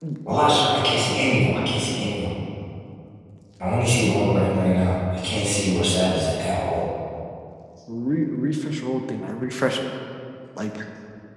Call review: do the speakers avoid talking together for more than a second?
Yes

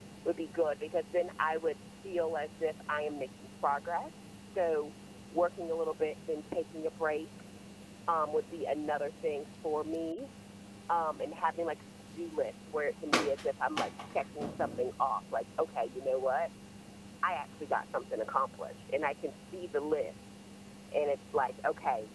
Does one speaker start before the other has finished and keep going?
No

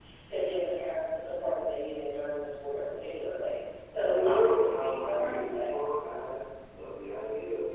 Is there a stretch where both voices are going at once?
Yes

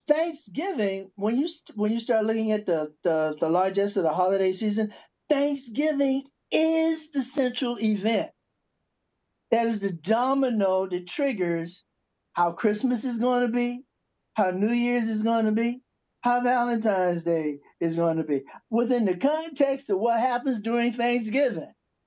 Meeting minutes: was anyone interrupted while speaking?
No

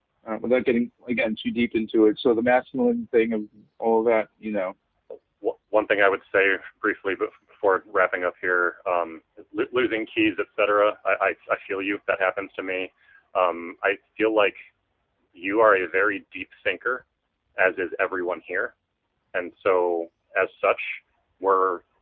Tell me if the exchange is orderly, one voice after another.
Yes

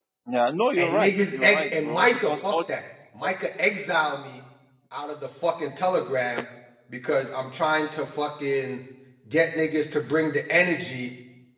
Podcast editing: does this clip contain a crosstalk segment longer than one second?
Yes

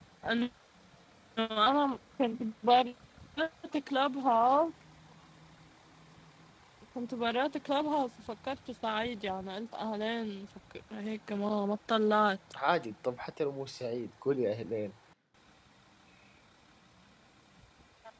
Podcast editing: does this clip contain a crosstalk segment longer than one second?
No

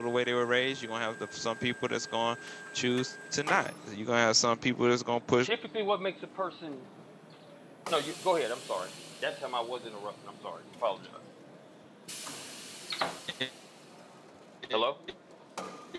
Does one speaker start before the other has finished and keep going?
No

